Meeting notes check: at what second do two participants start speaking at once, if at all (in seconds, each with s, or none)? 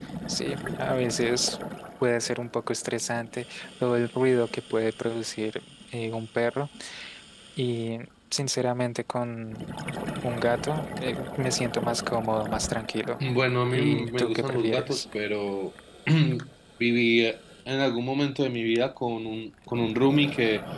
13.7 s